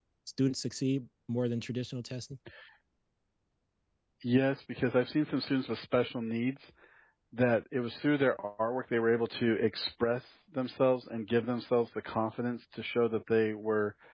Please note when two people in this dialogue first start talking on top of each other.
none

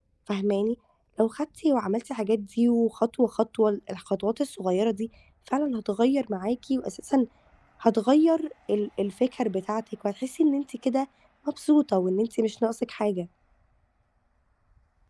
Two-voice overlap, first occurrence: none

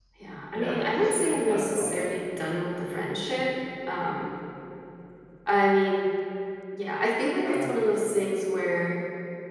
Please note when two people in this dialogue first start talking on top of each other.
0.5 s

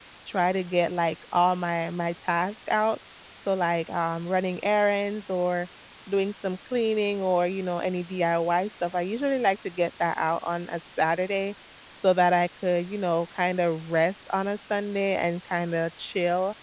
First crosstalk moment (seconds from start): none

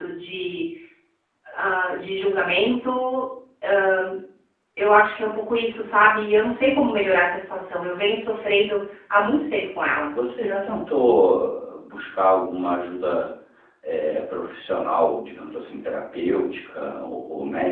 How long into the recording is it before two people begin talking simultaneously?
none

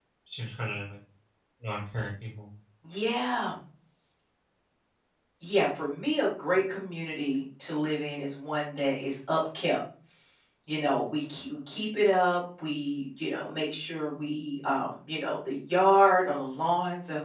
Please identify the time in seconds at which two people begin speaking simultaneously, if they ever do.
none

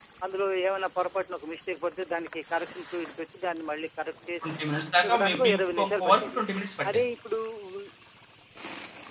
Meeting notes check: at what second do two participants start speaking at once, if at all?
5.1 s

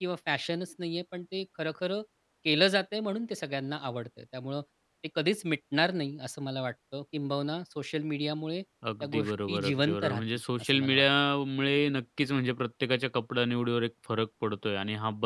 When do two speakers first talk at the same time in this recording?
8.8 s

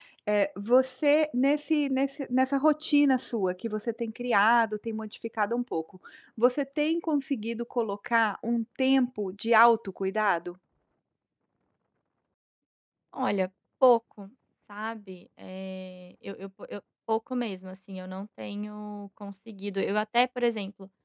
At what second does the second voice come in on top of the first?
none

